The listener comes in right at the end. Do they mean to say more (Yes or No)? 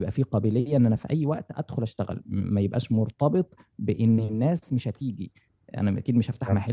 No